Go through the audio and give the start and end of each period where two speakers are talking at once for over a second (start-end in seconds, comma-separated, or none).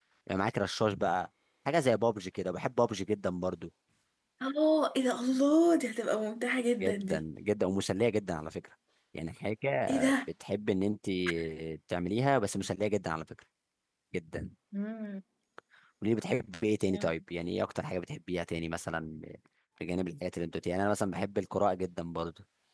none